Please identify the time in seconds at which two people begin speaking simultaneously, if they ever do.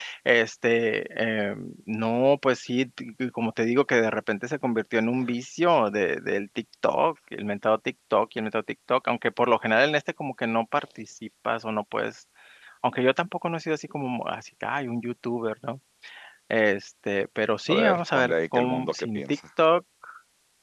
17.7 s

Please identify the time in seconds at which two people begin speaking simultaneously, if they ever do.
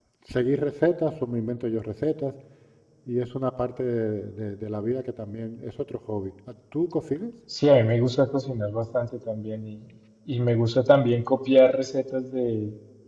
none

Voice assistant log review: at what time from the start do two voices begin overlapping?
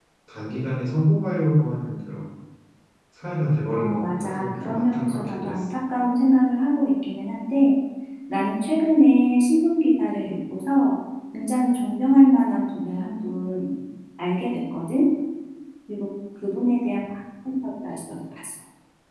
3.7 s

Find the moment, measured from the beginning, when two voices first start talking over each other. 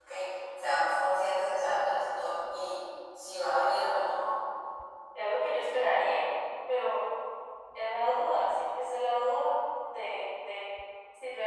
none

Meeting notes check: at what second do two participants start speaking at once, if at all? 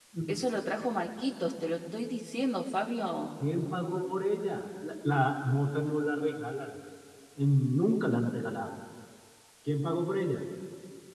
none

